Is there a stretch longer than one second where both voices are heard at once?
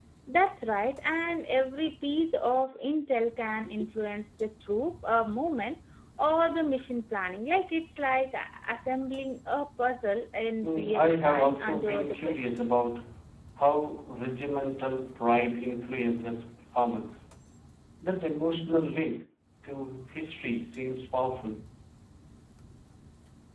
Yes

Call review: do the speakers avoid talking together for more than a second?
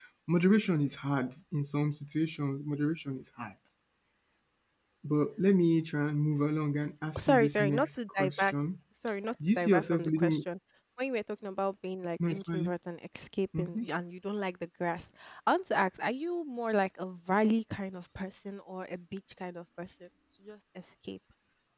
No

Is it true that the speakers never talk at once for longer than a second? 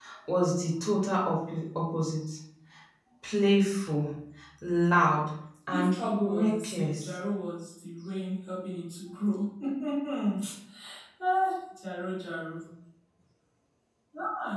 No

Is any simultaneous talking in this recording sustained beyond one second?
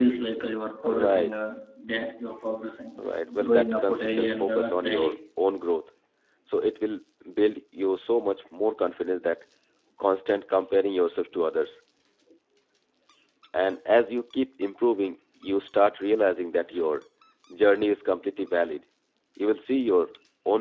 Yes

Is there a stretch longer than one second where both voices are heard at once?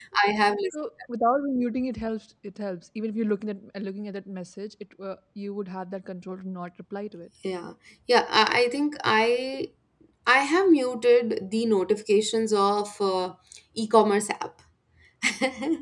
No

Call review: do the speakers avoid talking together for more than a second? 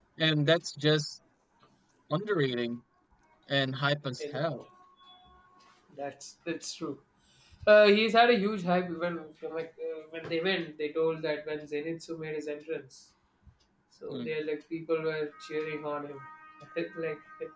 Yes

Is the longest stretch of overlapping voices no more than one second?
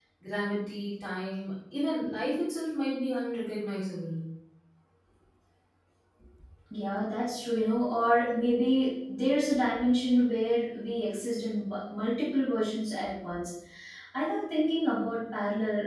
Yes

